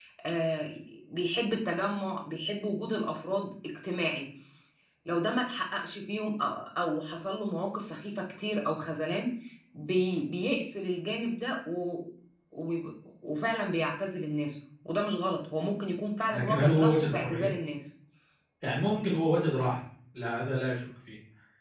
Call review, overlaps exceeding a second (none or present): present